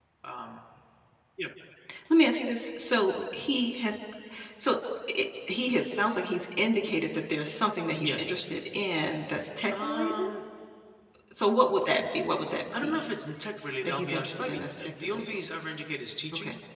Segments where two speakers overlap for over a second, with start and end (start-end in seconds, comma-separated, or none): 13.8-15.3